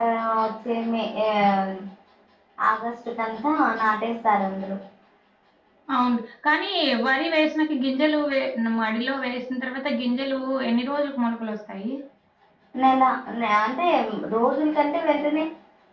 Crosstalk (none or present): none